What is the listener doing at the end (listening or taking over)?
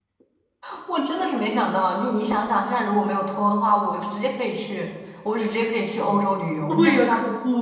taking over